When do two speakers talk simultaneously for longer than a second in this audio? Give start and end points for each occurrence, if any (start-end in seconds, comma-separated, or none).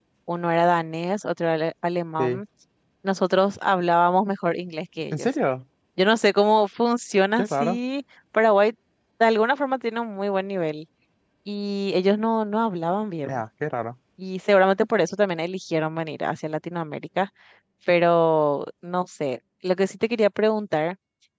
none